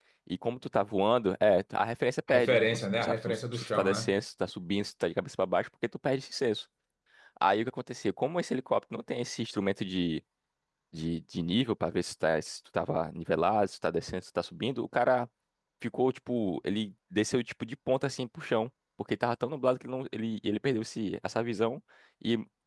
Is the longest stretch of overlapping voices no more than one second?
No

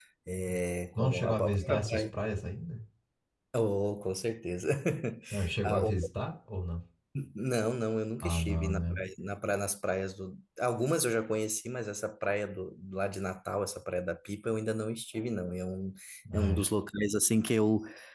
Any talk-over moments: Yes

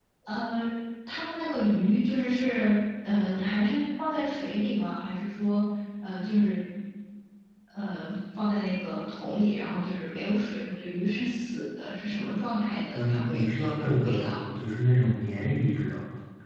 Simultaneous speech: Yes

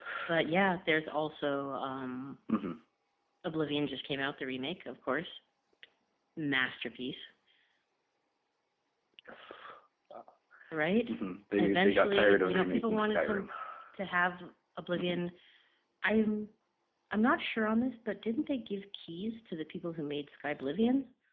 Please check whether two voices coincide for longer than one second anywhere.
Yes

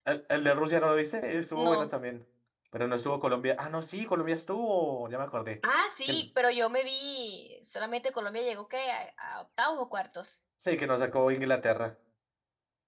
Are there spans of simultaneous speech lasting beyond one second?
No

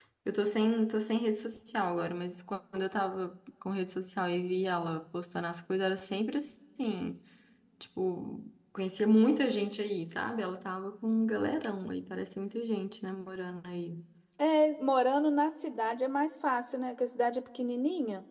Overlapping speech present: No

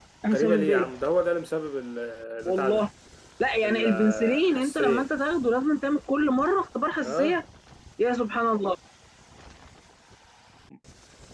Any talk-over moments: Yes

